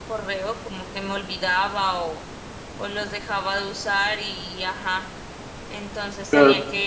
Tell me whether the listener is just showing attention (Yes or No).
Yes